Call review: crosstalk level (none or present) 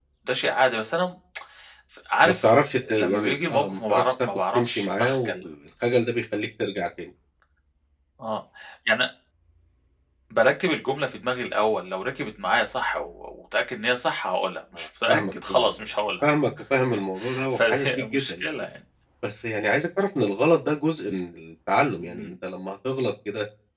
present